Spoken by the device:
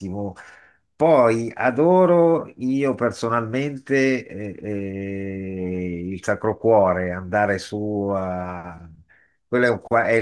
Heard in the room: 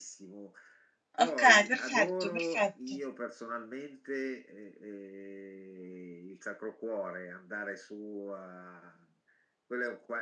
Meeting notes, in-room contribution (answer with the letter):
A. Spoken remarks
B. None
A